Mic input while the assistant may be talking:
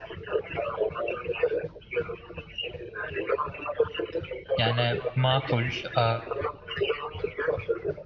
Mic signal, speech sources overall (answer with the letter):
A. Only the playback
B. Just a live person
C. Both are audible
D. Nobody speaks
C